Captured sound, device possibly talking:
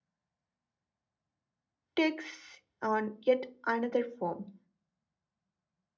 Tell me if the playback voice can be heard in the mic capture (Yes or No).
No